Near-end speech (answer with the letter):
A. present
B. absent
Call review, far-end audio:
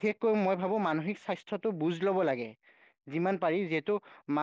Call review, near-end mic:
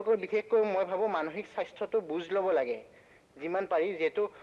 B